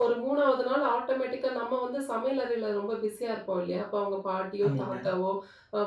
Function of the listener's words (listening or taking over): listening